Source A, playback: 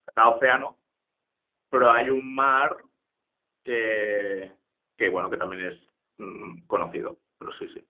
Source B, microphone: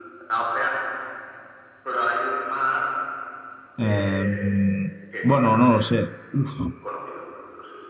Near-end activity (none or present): present